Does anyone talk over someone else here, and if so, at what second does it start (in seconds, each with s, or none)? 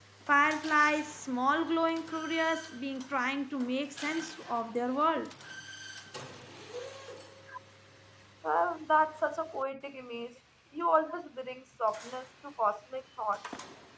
none